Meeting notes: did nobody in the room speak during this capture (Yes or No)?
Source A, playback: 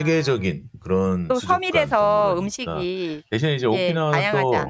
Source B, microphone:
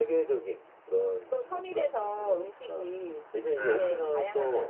No